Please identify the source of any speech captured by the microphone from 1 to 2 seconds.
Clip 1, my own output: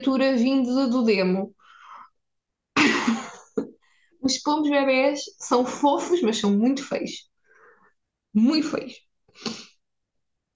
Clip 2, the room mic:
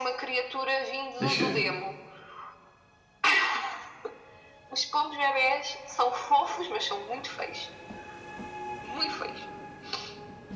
both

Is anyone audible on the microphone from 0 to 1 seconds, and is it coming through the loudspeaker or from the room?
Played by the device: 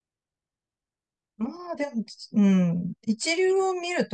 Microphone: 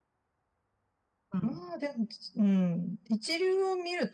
neither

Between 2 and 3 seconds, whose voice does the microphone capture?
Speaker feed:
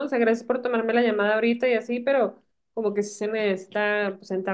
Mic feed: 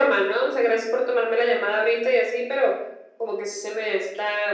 echo only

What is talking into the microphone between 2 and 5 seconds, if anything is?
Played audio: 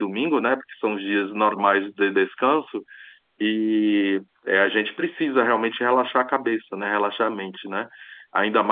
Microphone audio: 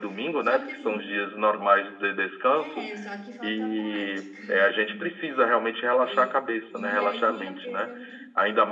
both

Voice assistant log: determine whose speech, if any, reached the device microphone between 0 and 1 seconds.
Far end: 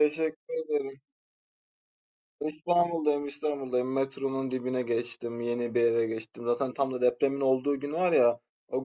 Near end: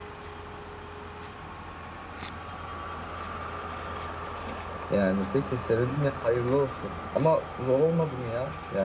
neither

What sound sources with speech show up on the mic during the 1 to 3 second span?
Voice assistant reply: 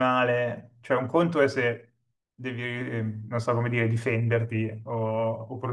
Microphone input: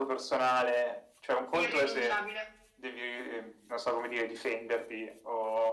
both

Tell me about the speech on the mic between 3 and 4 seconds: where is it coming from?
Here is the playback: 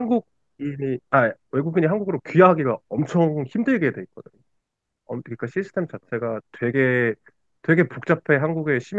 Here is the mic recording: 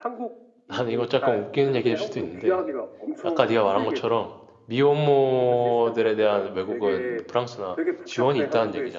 both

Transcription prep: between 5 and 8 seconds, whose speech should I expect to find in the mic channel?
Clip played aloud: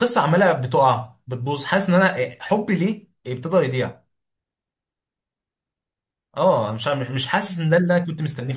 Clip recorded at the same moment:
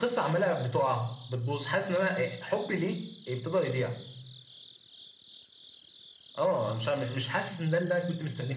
echo only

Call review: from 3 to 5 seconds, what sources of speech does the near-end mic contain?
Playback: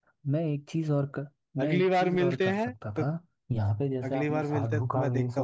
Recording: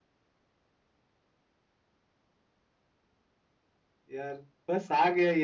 user only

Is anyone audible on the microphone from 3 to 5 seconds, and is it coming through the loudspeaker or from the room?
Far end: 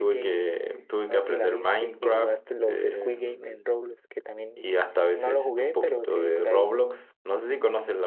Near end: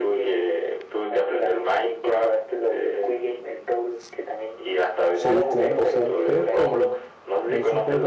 echo only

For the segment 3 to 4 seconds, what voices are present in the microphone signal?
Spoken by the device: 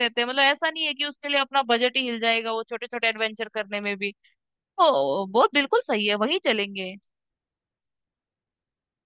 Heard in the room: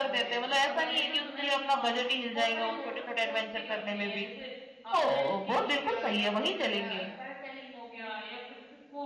both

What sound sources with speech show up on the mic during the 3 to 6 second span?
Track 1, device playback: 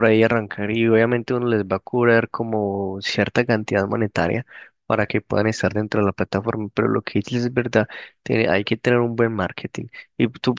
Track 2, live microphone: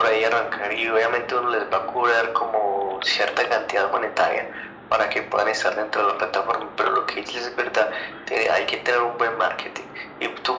echo only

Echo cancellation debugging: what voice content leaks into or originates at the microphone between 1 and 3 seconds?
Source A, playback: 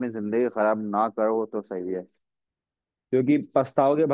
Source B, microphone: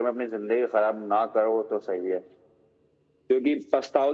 echo only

